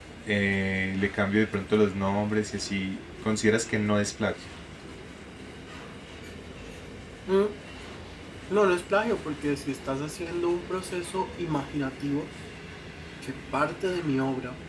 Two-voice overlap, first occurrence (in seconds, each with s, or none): none